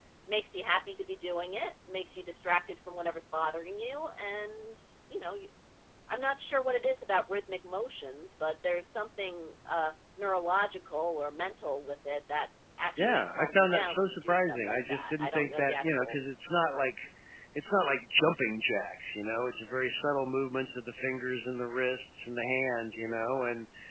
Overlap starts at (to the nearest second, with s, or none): 13 s